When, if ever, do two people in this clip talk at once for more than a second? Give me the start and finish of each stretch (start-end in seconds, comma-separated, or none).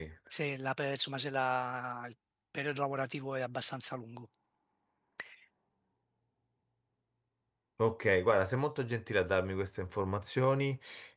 none